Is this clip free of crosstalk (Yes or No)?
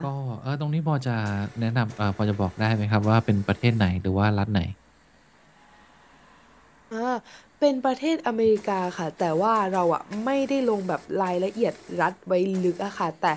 Yes